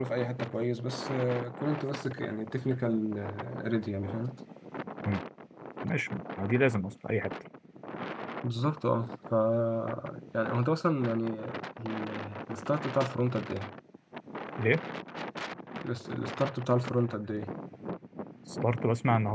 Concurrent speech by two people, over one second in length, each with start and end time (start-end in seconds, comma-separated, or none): none